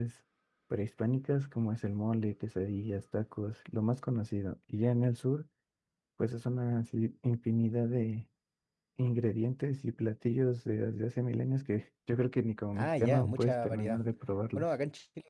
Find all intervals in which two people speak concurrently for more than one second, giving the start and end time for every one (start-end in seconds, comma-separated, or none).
12.7-14.0